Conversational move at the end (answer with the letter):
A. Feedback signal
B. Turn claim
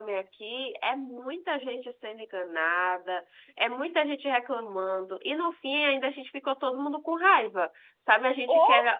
A